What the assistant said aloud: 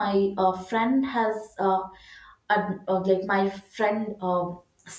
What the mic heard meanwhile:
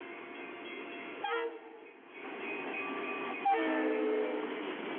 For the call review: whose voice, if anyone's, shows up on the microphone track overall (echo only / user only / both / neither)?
neither